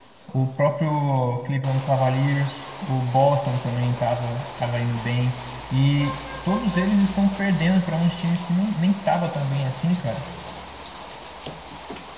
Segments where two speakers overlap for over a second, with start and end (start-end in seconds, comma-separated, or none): none